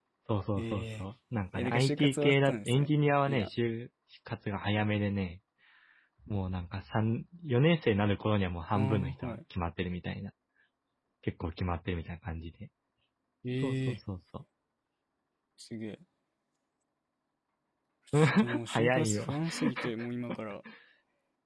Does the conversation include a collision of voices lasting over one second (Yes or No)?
Yes